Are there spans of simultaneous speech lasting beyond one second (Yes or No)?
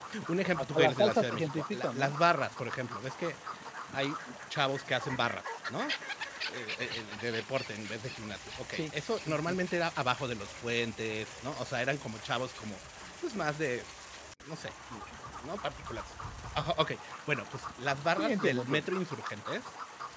Yes